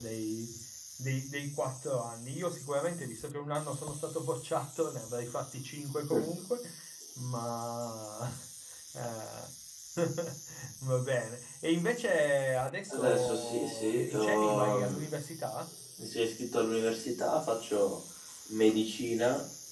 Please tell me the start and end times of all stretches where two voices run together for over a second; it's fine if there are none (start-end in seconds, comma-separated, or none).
12.9-14.9